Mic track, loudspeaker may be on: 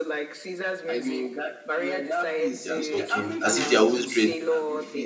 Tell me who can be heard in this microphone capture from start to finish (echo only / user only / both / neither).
both